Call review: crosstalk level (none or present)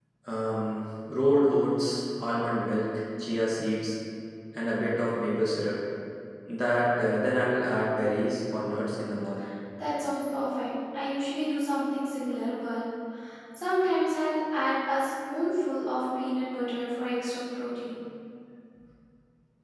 none